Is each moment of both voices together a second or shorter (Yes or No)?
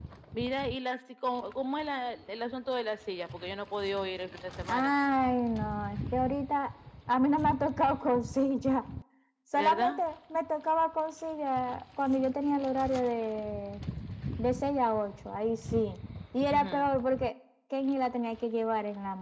Yes